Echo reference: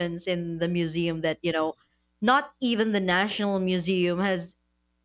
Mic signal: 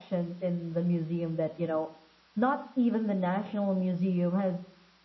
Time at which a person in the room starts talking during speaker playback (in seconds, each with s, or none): none